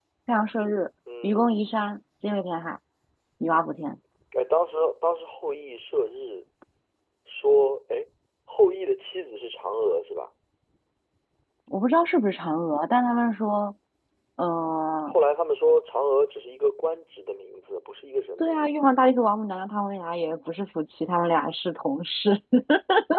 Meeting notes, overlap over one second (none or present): none